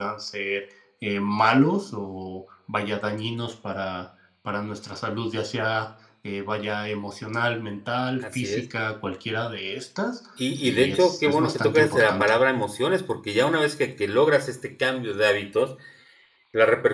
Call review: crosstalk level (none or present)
present